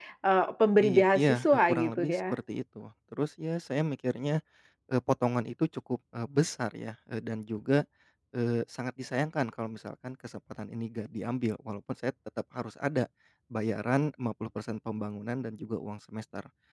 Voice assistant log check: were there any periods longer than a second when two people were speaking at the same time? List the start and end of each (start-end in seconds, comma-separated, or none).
0.8-2.2